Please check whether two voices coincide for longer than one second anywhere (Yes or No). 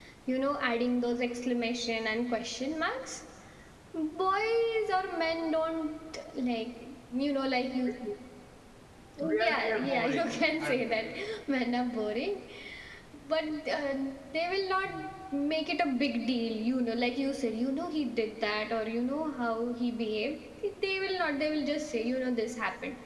Yes